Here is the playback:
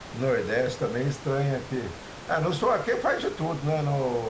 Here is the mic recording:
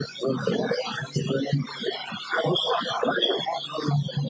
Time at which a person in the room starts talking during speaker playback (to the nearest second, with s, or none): none